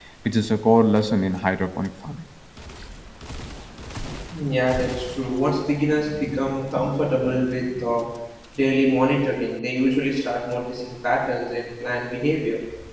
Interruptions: none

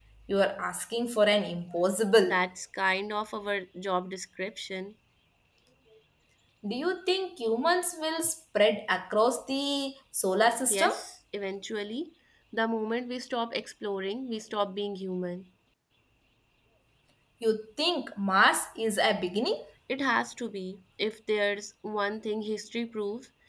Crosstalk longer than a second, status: none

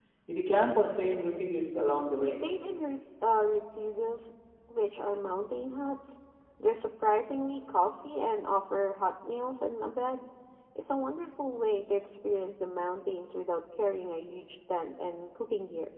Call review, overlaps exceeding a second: none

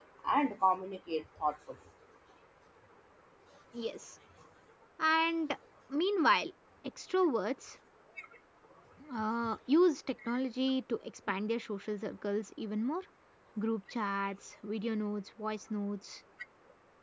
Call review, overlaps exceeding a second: none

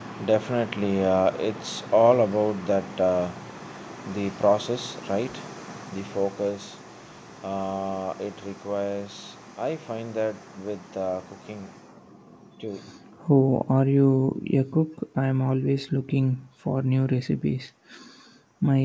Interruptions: none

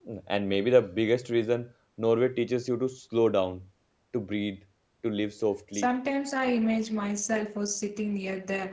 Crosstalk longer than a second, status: none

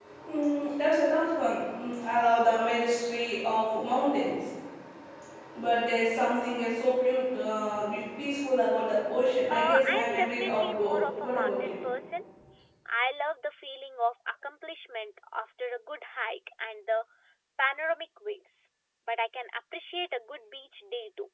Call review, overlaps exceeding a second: present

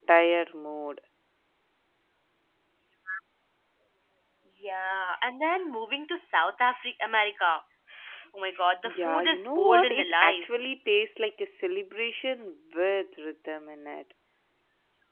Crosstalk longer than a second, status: present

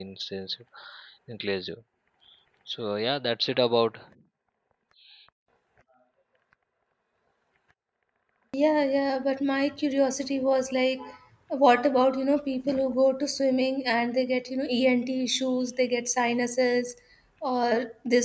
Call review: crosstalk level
none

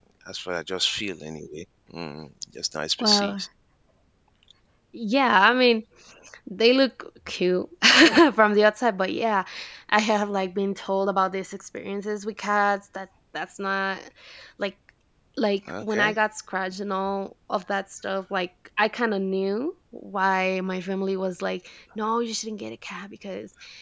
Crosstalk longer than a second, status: none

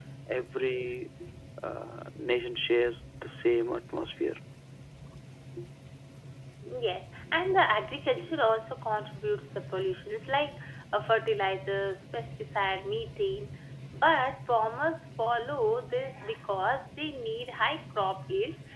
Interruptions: none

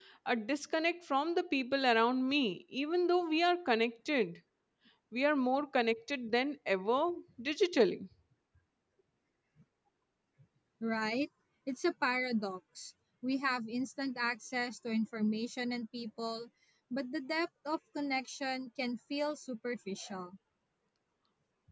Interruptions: none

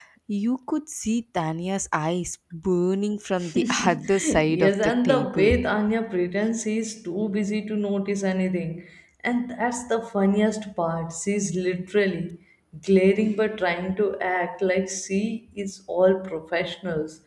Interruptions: present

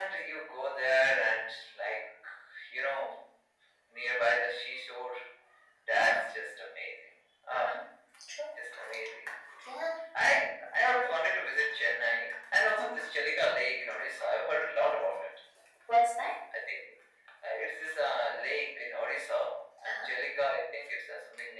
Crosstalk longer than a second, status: none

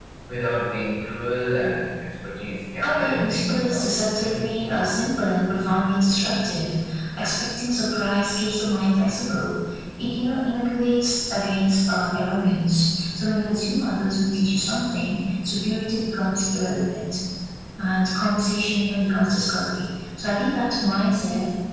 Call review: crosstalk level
present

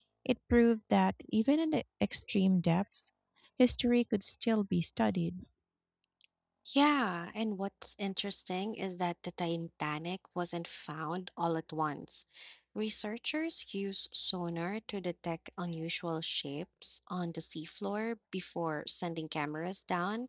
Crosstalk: none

